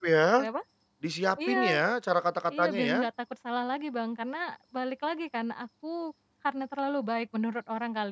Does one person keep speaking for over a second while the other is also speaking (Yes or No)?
No